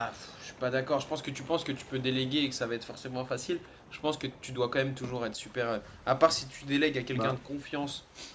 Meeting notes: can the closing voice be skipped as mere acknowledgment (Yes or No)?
Yes